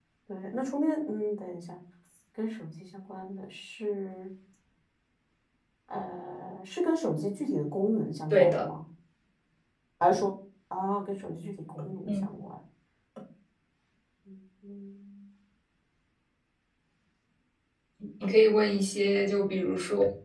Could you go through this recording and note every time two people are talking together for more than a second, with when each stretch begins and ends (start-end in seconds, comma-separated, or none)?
none